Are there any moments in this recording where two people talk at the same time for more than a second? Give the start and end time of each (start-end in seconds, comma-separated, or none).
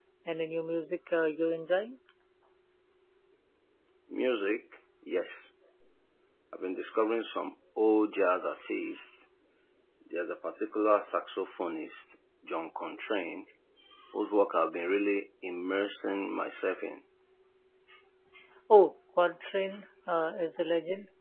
none